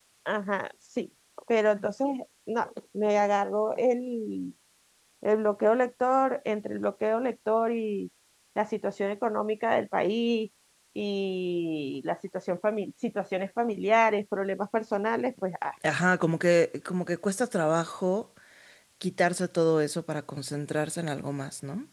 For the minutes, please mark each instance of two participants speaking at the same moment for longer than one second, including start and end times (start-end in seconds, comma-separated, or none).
none